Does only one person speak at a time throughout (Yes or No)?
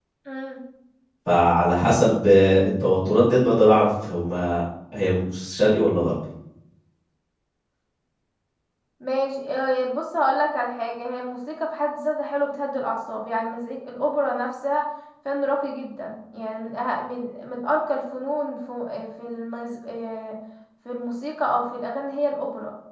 Yes